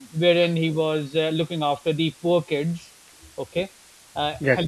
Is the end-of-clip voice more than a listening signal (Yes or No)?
No